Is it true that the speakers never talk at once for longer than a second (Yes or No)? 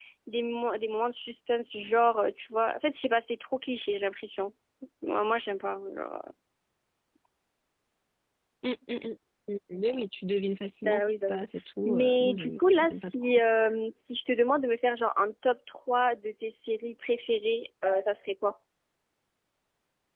No